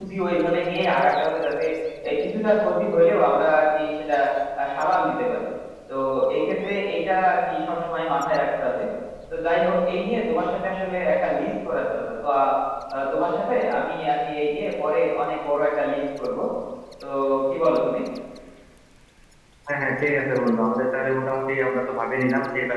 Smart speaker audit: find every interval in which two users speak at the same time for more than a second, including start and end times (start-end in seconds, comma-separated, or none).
none